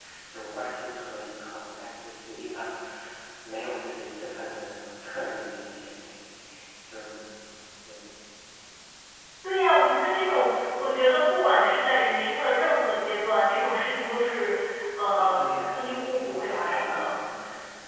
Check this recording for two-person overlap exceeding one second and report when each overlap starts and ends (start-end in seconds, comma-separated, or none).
15.2-17.1